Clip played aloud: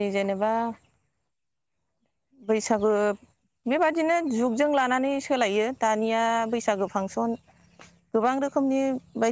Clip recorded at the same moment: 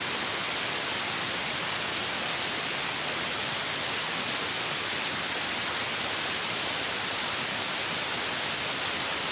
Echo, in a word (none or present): none